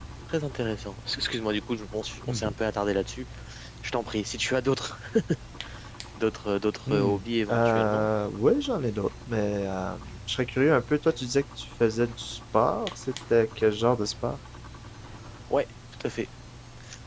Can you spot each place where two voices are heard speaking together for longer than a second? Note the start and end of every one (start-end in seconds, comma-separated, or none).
6.9-8.1